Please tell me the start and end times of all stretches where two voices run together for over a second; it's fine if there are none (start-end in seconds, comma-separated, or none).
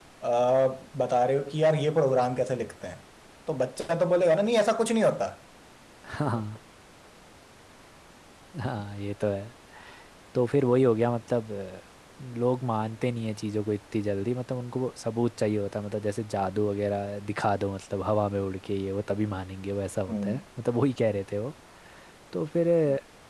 none